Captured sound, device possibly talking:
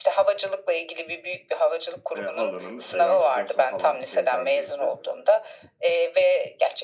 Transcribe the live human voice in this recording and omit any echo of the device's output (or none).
eee, halanın, eee, yanlış hatırlamıyorsam halan da teyzen değildi.